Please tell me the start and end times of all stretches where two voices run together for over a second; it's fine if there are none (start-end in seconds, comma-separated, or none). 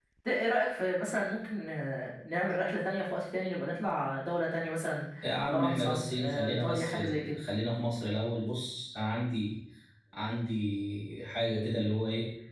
5.5-7.4